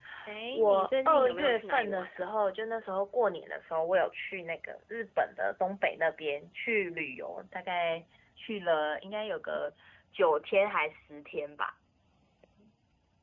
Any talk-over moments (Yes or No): Yes